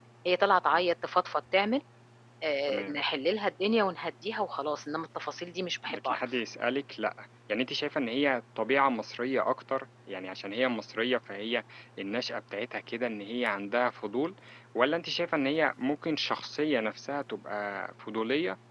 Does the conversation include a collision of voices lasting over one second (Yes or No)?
No